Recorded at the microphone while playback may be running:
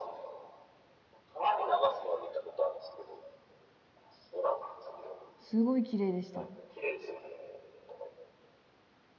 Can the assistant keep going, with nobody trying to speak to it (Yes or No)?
No